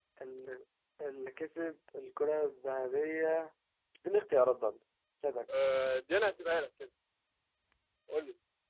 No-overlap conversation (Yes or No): Yes